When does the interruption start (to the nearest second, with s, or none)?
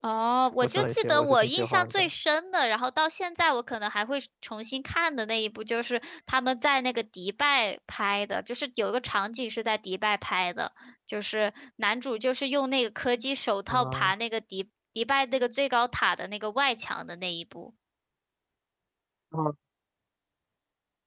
1 s